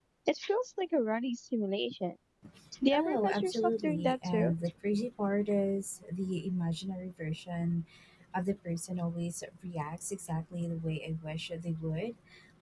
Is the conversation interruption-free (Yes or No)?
No